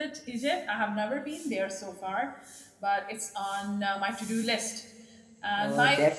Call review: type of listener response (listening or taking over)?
taking over